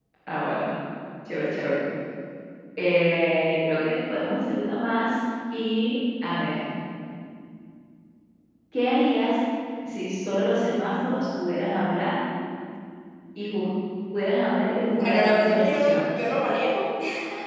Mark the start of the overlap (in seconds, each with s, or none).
14.8 s